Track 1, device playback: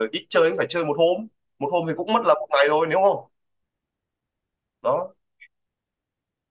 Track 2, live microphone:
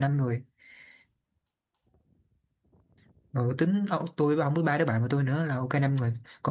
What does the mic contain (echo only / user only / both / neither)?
user only